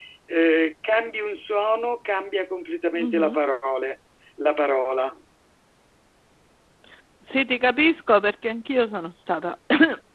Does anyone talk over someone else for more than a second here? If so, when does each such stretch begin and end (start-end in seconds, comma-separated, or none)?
none